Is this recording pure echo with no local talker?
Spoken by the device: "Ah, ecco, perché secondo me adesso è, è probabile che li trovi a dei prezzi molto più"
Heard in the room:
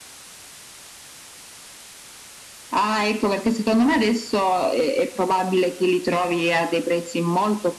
Yes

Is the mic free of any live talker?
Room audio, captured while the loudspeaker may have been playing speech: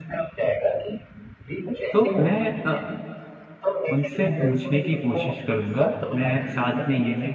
No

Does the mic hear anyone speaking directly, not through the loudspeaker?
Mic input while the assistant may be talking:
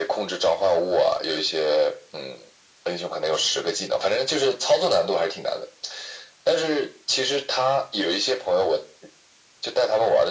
No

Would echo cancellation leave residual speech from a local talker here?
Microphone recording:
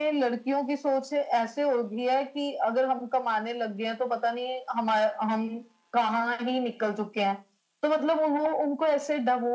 No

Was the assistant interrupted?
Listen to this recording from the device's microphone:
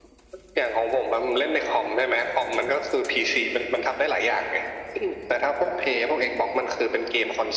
No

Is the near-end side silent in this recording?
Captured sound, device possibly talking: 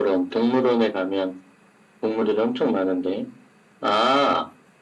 Yes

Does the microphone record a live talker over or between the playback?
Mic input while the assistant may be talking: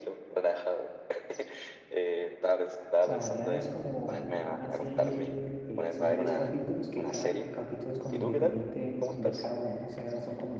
Yes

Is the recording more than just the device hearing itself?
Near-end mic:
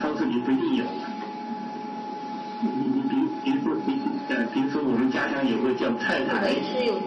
Yes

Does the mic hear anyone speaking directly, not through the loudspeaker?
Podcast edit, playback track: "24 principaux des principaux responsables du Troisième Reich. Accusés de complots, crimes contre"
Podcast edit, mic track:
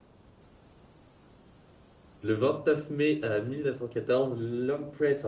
Yes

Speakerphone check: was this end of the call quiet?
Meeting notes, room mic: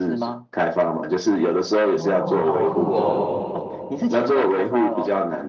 No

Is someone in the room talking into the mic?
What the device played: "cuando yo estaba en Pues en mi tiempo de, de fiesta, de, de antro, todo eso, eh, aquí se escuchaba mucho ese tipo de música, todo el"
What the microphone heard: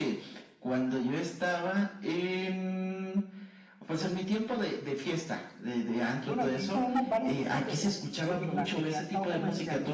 Yes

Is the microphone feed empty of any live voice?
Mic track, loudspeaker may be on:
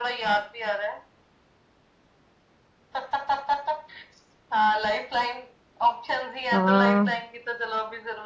No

